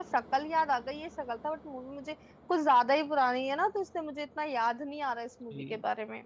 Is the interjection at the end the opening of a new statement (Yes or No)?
Yes